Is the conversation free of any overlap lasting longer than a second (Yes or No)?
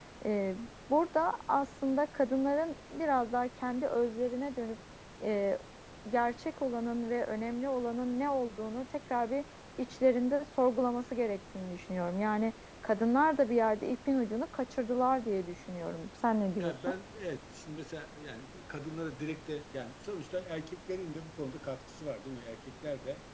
Yes